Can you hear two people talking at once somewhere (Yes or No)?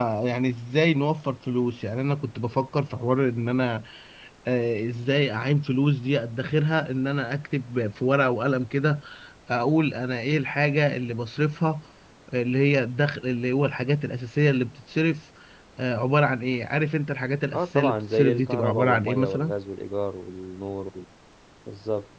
Yes